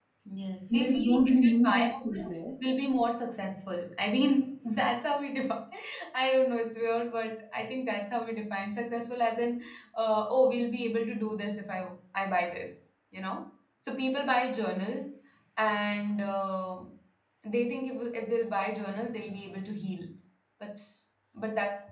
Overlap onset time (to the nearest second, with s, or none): 1 s